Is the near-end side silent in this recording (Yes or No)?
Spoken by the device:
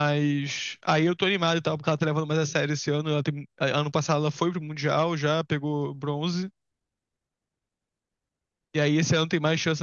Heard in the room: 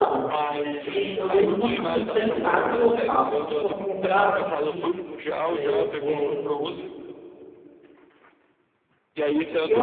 No